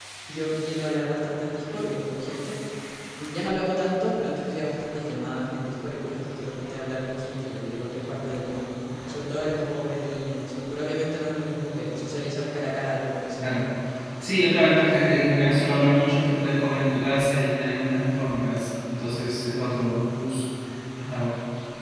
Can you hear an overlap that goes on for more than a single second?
No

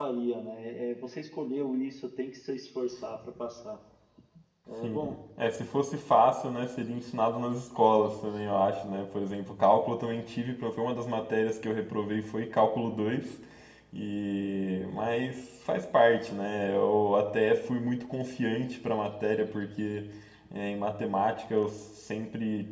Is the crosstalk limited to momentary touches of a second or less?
Yes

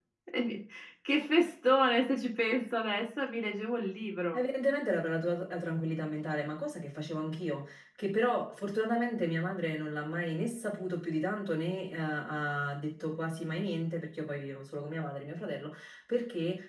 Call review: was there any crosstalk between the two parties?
No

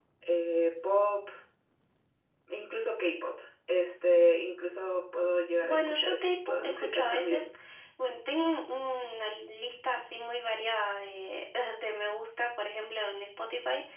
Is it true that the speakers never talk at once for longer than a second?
No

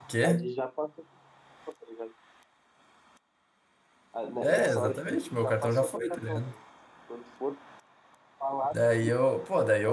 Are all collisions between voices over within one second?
No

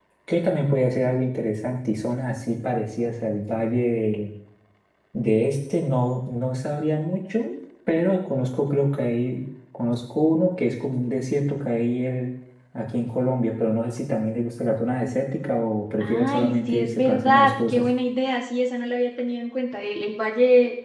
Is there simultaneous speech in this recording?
Yes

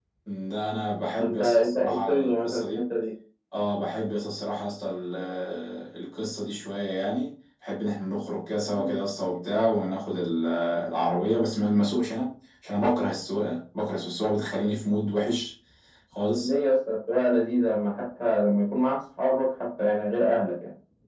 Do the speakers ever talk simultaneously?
Yes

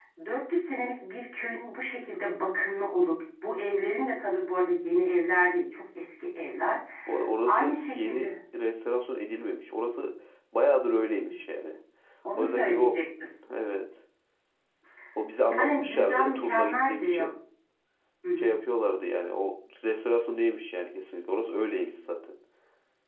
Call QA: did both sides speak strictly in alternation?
No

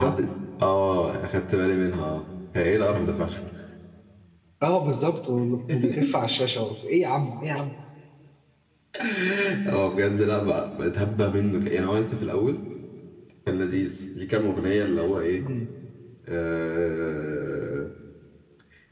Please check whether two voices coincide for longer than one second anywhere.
No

